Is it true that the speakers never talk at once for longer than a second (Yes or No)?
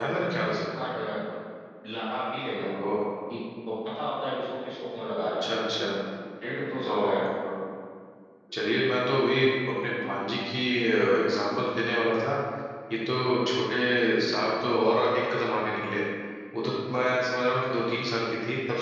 Yes